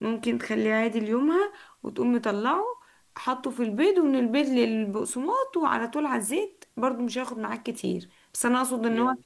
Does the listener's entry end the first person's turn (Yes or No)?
No